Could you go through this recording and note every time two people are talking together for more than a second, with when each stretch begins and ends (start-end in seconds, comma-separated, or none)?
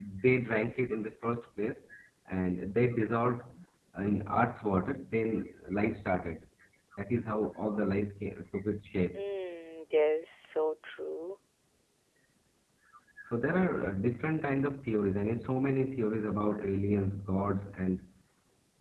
none